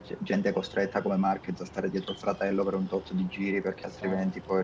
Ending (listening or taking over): listening